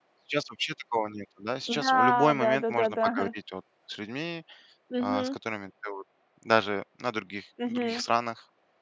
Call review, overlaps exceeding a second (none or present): present